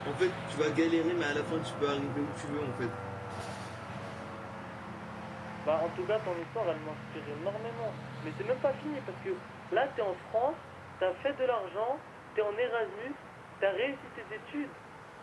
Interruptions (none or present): none